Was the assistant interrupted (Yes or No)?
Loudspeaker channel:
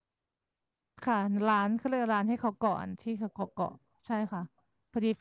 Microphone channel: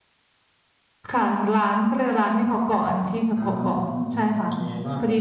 Yes